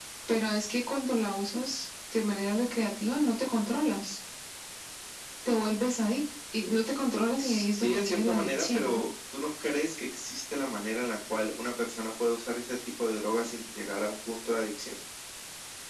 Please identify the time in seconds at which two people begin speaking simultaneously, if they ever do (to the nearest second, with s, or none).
7 s